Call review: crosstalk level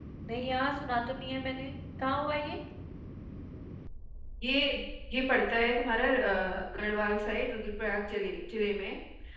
none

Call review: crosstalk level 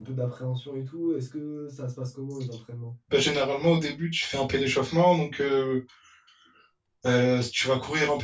none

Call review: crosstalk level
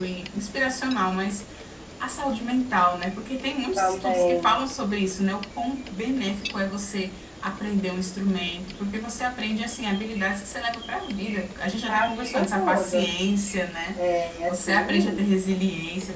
present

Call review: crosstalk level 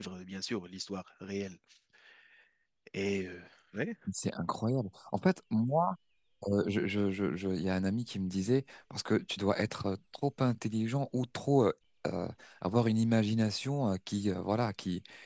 none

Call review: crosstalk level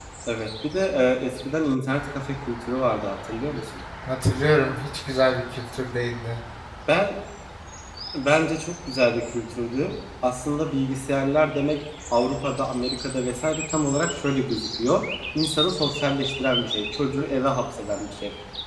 none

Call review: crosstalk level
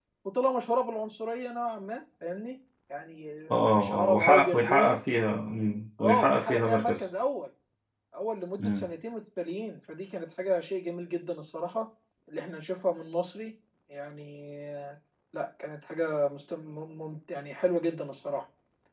present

